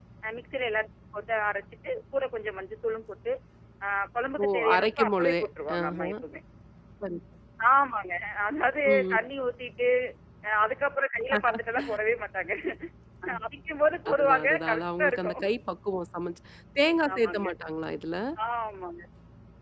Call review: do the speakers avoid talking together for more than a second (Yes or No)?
No